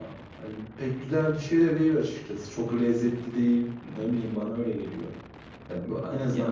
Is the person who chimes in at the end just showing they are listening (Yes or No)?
Yes